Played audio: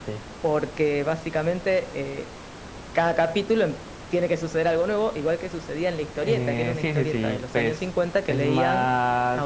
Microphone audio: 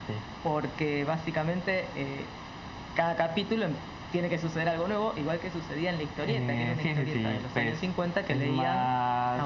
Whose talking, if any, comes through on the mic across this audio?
echo only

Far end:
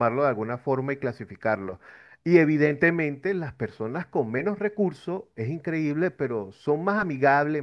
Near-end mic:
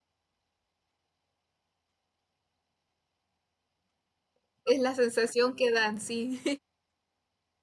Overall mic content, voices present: user only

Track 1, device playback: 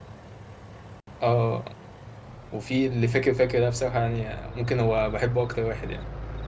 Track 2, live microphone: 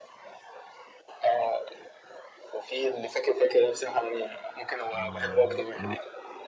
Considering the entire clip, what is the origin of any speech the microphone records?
both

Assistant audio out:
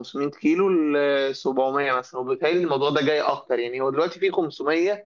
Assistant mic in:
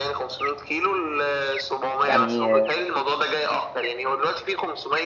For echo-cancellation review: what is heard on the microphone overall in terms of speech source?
both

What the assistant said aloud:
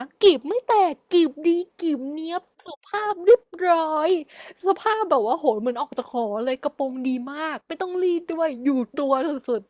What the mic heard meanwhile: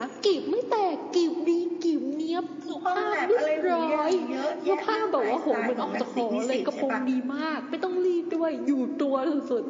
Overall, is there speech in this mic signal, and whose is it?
both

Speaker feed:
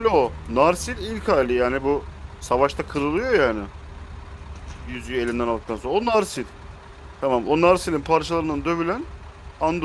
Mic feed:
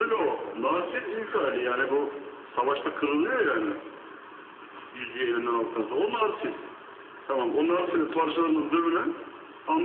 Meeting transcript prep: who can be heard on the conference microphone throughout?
echo only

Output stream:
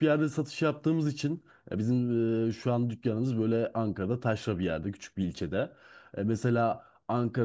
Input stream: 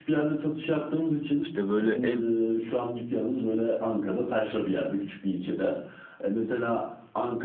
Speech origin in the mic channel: both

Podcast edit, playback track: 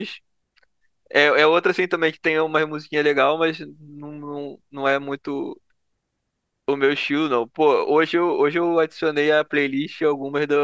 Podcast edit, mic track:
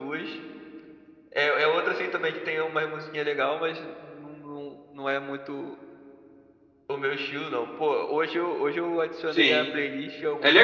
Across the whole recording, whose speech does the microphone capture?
both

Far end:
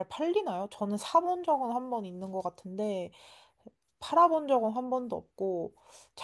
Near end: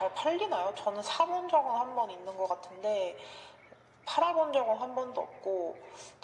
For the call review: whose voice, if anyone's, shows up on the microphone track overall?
echo only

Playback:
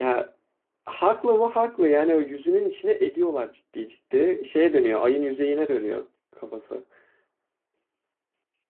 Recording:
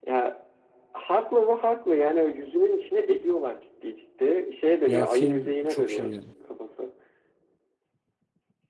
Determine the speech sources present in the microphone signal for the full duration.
both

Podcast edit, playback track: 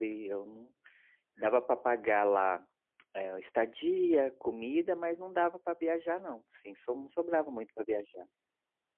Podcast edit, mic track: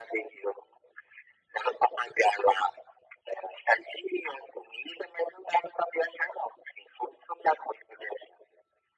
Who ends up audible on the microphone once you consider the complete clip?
echo only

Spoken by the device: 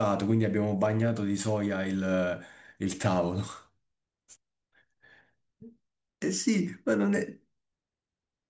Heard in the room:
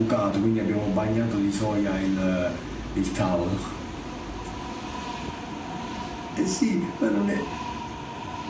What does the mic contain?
echo only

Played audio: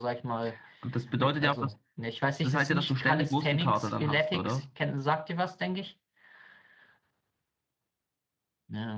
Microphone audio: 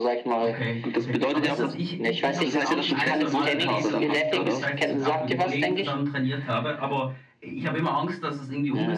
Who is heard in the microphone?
both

